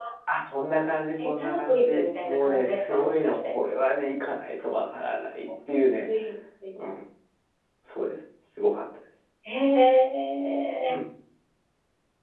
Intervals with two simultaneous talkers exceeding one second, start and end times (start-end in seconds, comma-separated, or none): 1.2-3.5